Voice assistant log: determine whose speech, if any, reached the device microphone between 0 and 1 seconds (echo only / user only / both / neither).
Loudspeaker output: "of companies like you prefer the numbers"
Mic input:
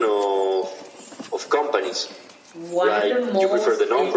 echo only